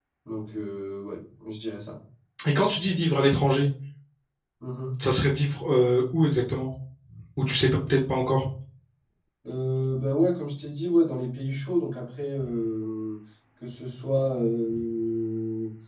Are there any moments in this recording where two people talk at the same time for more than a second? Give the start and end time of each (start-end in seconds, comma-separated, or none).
none